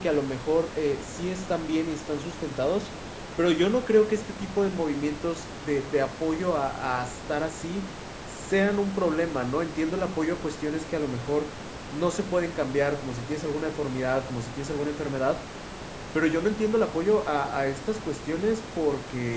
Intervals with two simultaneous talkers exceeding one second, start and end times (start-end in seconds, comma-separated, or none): none